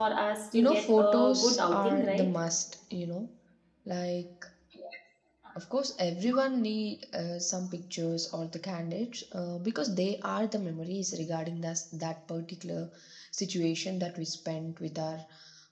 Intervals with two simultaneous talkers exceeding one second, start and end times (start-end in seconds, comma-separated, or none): 0.5-2.3